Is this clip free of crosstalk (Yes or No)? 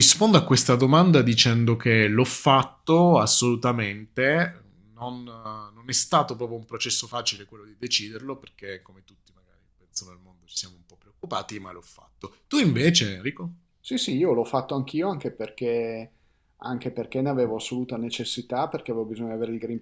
Yes